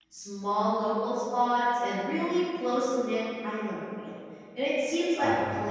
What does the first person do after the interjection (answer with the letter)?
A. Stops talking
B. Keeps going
B